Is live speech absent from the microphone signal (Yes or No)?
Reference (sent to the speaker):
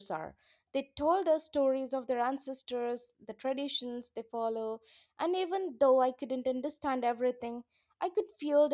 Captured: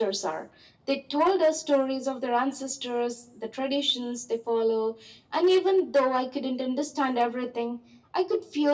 Yes